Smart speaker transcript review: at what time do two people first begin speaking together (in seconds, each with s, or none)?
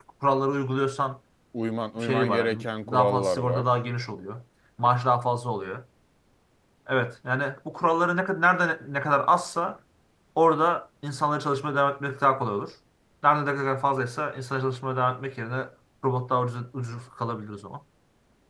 2.0 s